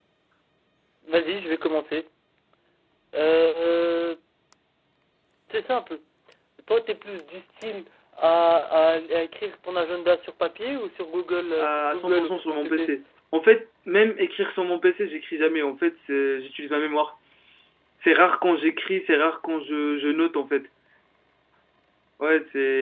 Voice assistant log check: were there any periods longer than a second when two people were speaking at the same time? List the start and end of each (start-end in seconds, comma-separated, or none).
11.6-12.9